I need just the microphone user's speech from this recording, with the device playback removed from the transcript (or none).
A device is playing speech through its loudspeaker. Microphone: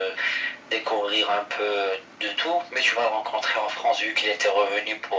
none